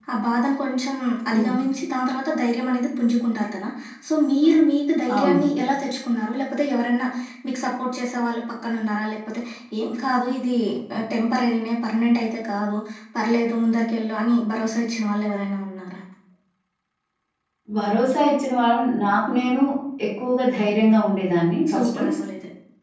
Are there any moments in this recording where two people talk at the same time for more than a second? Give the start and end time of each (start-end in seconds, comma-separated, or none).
none